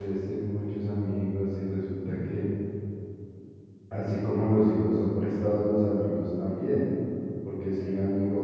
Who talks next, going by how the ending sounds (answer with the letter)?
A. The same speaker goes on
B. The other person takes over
A